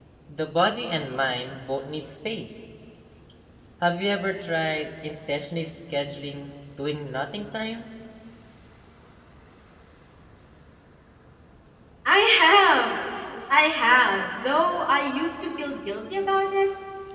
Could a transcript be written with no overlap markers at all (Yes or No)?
Yes